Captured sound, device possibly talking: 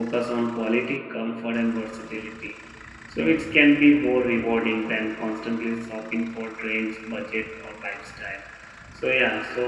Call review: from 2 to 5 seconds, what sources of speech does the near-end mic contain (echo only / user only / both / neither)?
user only